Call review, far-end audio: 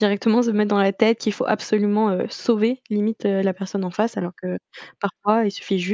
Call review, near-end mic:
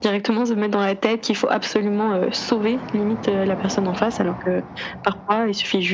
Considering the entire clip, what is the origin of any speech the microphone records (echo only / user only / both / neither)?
echo only